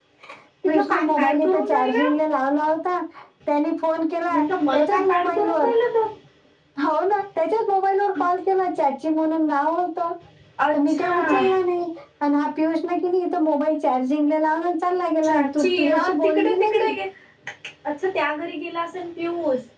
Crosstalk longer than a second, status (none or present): present